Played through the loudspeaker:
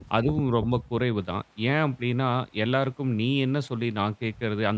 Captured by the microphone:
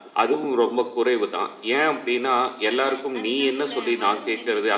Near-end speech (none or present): present